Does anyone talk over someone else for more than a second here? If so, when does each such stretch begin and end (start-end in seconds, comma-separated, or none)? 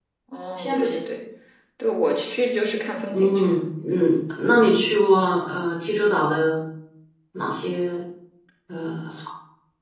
none